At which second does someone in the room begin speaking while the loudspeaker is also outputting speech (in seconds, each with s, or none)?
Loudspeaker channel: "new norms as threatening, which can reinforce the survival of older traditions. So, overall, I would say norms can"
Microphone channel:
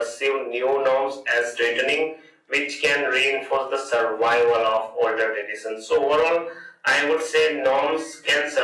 none